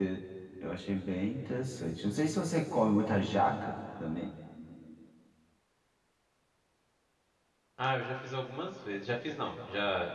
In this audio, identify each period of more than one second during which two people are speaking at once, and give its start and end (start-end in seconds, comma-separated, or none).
none